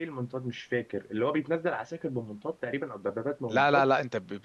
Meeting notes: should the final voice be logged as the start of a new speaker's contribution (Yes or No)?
Yes